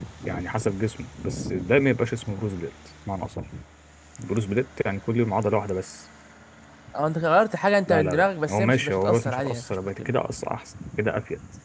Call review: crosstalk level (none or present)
present